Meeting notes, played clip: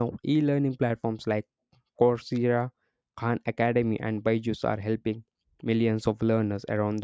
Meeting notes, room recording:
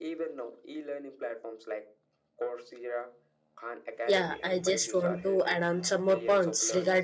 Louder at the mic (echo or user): user